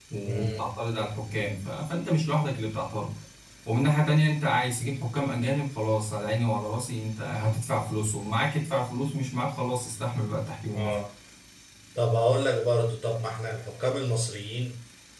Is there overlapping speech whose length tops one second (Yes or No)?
No